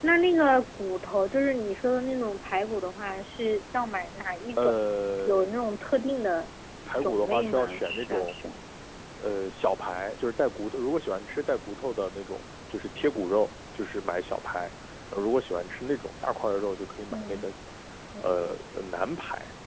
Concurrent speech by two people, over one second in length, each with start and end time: 7.0-8.3

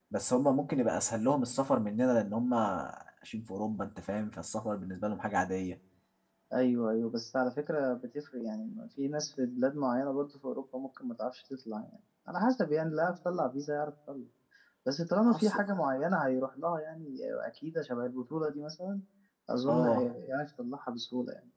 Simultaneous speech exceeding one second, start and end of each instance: none

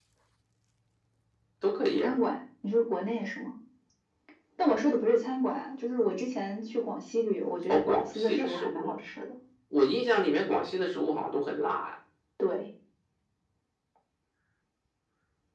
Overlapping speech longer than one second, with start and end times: 7.7-8.9

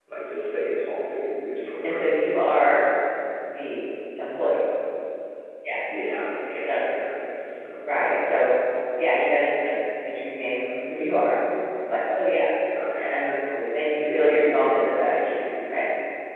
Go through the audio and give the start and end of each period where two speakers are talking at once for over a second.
14.0-15.8

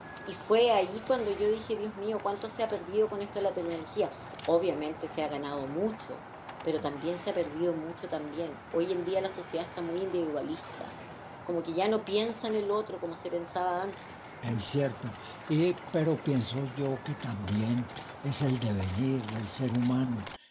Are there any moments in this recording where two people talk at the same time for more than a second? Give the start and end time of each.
none

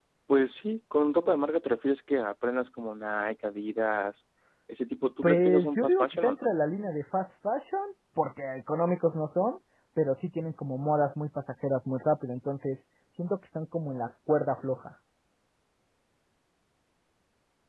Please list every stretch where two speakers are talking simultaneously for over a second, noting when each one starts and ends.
5.2-6.5

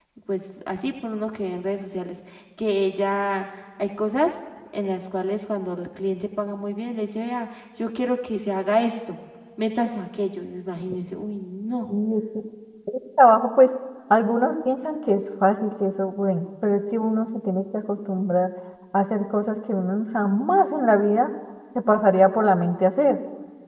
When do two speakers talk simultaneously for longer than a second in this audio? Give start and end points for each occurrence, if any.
none

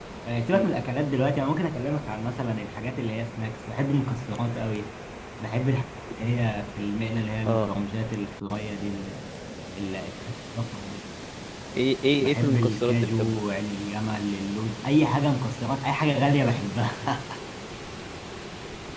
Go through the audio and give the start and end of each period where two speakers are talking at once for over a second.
12.2-13.4

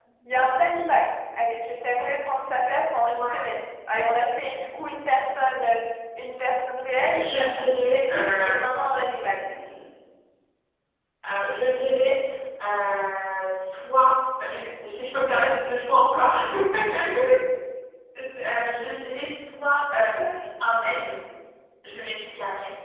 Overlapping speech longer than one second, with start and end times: 7.1-9.5

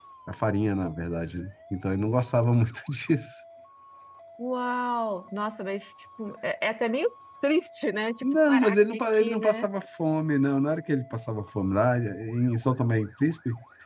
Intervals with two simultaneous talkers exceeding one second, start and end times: 8.2-9.7

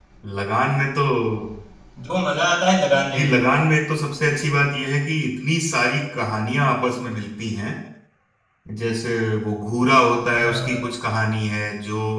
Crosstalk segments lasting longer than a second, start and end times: none

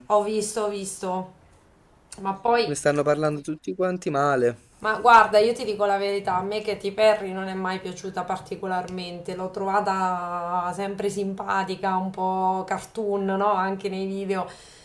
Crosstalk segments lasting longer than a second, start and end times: none

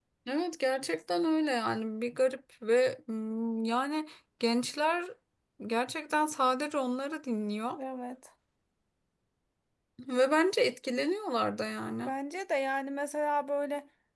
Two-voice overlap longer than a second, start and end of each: none

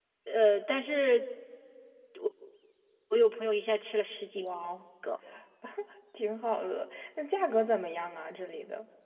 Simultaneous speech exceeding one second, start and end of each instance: none

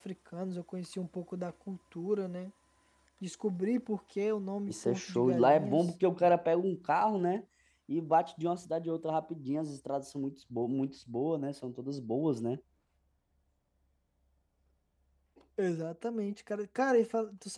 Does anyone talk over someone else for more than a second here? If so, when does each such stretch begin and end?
4.7-5.9

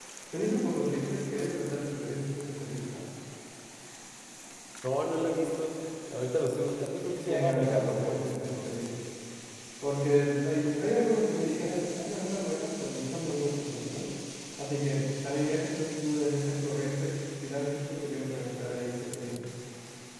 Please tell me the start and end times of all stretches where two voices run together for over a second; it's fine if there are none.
7.2-8.9

